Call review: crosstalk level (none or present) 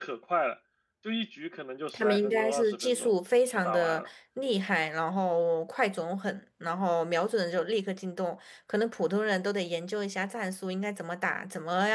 present